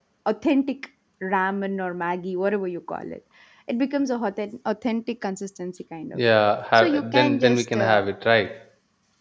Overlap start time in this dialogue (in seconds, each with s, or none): 6.8 s